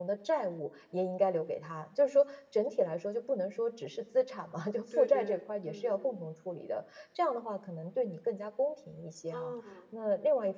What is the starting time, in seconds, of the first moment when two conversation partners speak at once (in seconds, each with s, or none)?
4.9 s